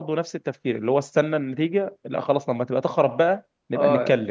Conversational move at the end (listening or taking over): taking over